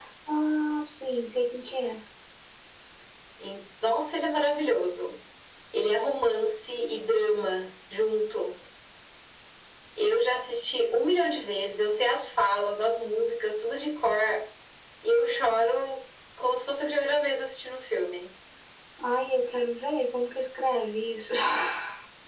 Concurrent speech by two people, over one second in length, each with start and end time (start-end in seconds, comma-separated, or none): none